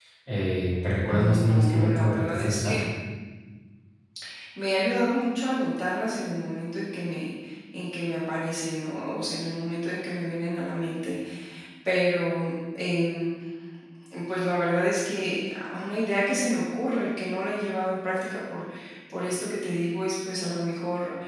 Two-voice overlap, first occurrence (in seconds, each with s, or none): 1.1 s